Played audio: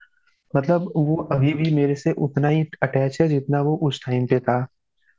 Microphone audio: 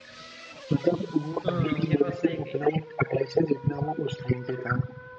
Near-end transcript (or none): हम्म ये बात सही कही